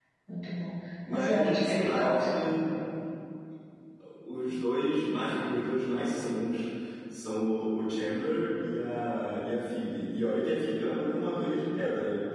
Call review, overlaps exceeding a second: present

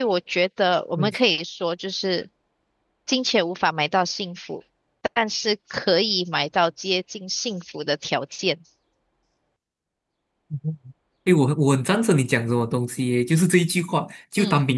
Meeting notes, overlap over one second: none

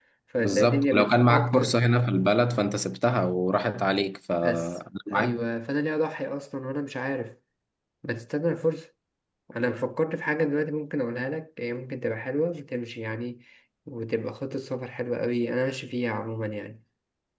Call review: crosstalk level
present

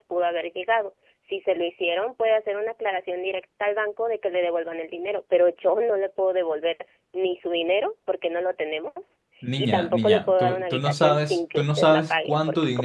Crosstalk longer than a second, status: present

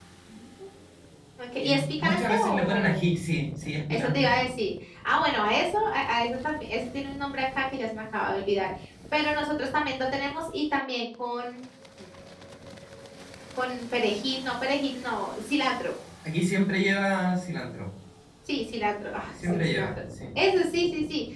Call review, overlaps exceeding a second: present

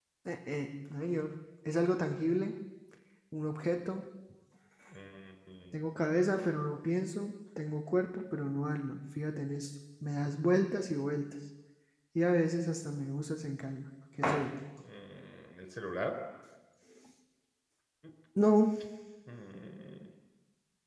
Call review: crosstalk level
none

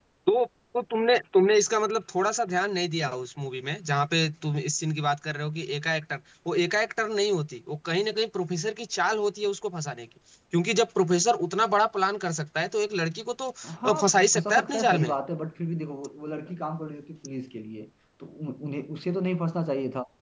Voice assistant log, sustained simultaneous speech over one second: present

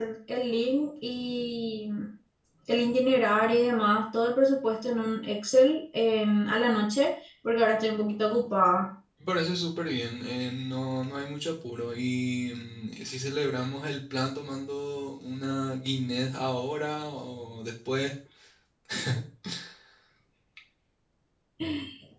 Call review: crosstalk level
none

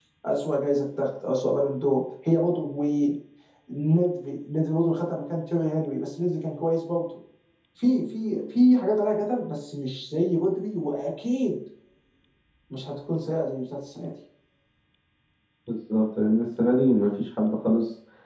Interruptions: none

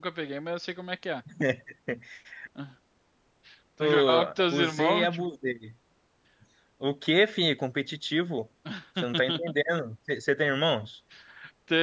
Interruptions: present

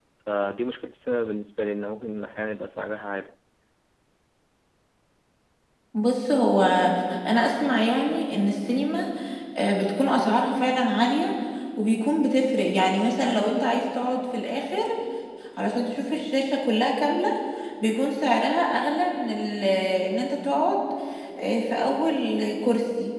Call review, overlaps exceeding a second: none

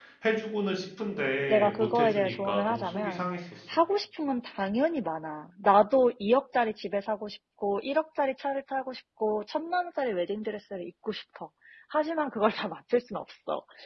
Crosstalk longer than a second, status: present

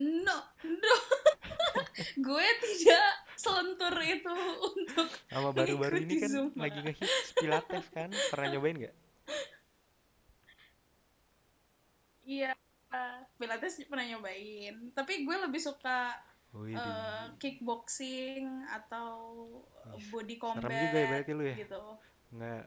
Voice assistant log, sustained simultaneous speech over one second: present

